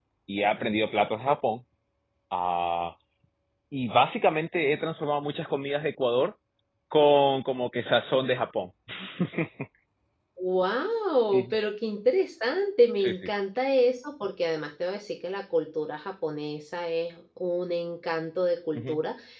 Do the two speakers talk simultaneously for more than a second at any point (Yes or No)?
No